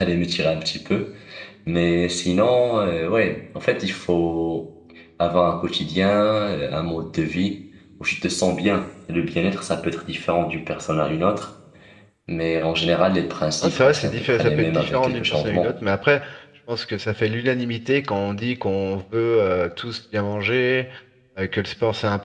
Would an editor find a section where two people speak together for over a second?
Yes, from 13.6 s

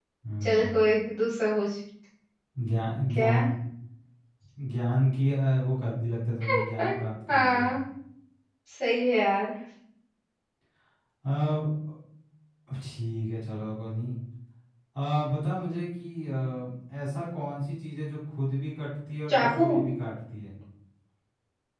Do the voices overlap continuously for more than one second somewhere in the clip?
No

